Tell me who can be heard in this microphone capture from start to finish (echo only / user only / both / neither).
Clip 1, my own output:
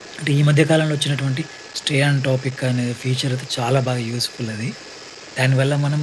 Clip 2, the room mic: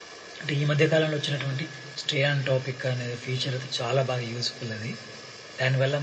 echo only